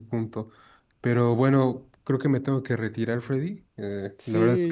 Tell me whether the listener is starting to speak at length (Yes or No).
Yes